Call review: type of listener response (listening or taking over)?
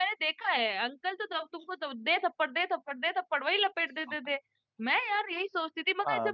listening